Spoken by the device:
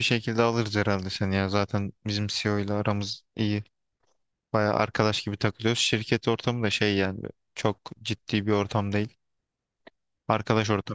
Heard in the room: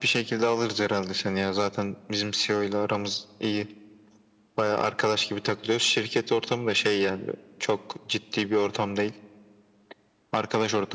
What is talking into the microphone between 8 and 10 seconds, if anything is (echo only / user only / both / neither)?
echo only